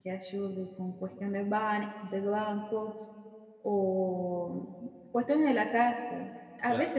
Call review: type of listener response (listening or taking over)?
listening